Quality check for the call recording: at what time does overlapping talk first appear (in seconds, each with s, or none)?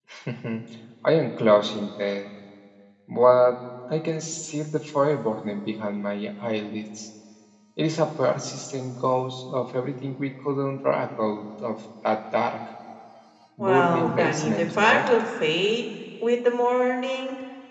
13.6 s